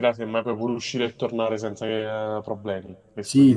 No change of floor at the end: No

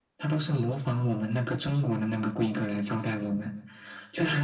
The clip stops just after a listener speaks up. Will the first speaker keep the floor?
Yes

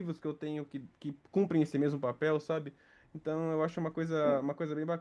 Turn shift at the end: No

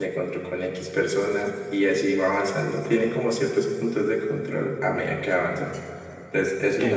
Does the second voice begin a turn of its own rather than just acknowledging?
No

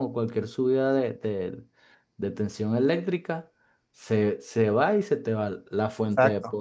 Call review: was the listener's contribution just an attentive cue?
Yes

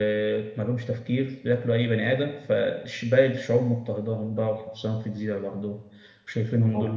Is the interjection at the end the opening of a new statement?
No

